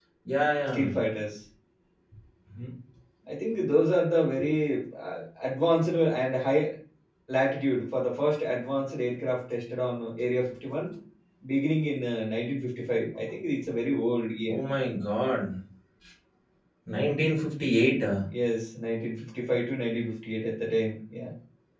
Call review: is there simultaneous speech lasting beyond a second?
No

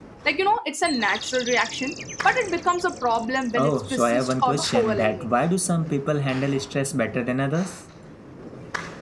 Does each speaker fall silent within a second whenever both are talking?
No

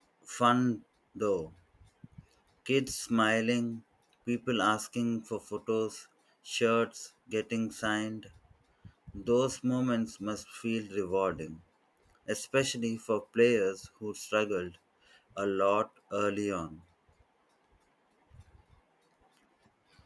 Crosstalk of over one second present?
No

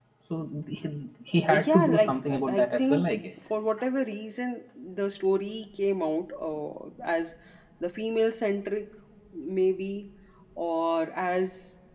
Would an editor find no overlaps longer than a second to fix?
No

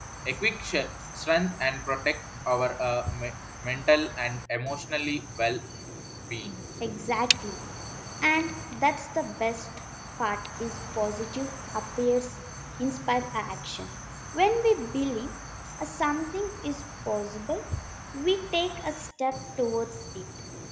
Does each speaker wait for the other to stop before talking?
Yes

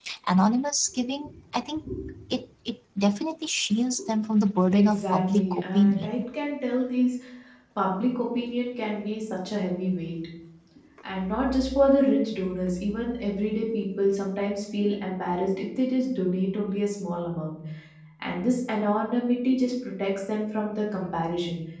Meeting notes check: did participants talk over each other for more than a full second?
Yes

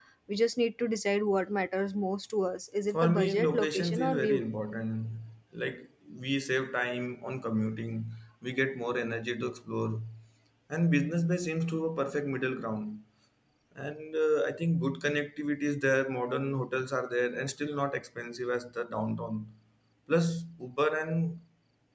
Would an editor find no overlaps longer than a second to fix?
No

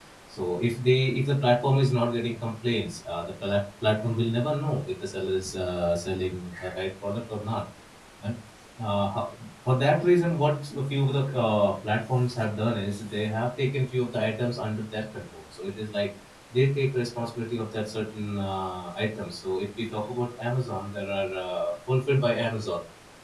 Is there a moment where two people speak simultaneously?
No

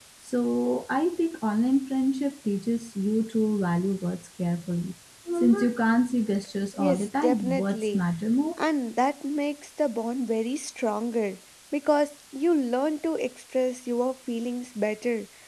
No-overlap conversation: No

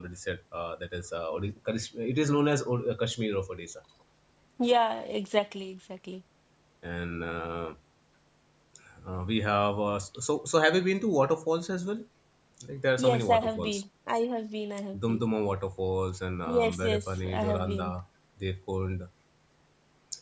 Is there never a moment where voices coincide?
No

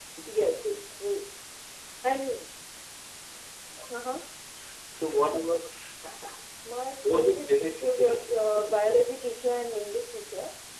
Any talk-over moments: Yes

